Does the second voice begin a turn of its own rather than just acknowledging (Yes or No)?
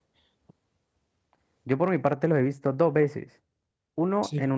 No